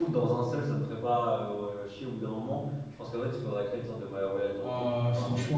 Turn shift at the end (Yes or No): Yes